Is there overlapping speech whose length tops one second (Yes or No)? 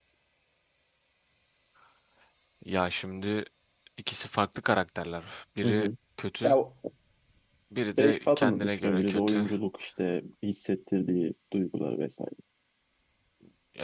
Yes